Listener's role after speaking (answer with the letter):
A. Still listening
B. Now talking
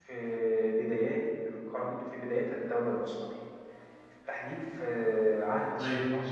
A